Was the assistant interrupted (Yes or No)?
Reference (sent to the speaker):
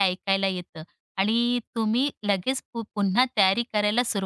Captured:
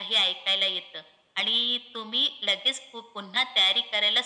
No